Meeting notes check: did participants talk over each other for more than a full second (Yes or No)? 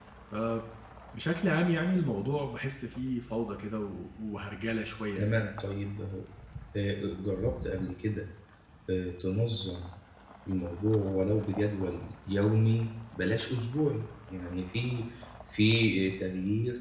No